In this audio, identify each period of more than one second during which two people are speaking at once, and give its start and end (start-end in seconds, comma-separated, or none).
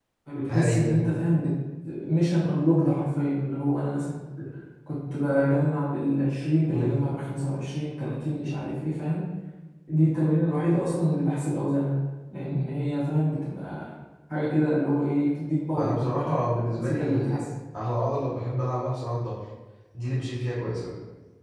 15.8-17.3